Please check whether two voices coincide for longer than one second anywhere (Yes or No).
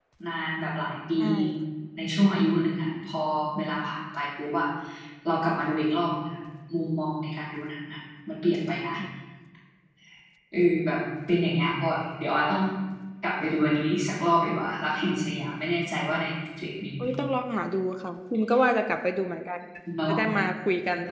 No